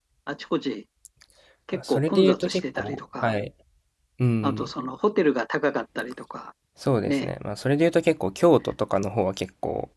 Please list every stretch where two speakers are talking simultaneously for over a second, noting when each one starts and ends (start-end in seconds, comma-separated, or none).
1.7-3.3